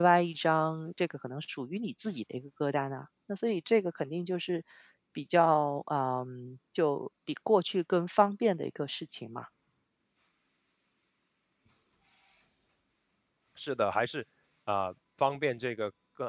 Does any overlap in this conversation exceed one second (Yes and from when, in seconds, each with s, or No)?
No